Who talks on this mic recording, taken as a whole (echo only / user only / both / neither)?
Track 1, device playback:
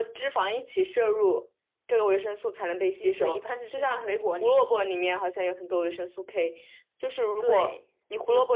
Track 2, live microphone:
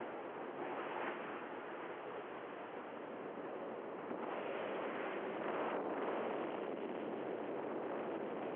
neither